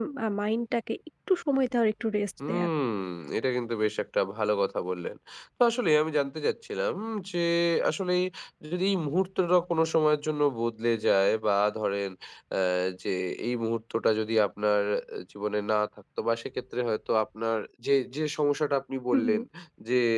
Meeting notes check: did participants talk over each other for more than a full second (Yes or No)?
No